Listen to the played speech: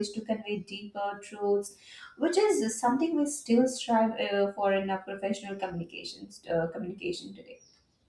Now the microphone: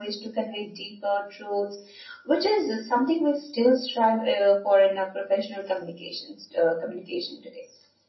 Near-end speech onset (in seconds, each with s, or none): none